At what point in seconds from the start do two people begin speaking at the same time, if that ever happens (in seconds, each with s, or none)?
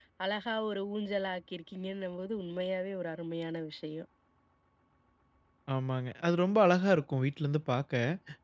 none